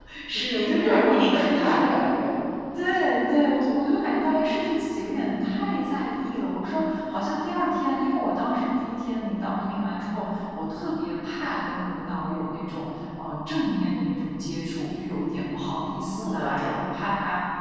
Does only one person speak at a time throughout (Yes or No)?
No